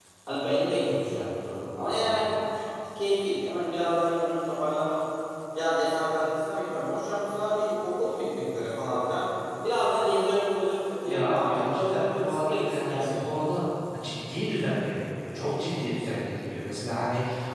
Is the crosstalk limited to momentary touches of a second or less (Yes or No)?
No